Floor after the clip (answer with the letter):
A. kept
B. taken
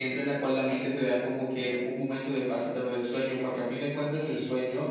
A